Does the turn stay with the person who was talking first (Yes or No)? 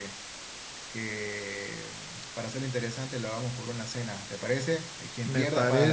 No